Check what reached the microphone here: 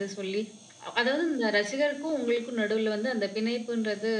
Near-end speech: present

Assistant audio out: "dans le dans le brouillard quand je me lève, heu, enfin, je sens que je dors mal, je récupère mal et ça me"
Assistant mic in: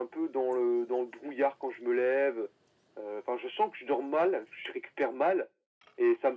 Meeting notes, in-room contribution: none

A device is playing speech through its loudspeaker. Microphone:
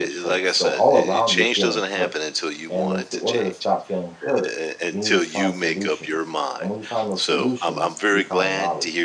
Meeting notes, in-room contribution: present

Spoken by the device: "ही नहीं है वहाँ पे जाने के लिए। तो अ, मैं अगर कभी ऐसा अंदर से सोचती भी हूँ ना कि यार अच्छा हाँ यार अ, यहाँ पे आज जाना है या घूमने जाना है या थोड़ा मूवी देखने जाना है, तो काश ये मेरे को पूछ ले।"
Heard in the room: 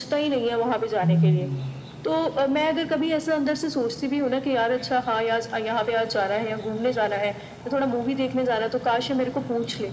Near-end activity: present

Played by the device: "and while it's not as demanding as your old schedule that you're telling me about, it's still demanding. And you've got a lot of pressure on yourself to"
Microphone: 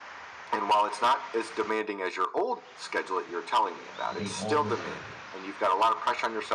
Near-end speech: present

